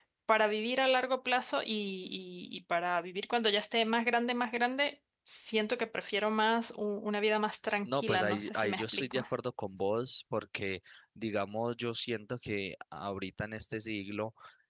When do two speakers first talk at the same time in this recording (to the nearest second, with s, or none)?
8 s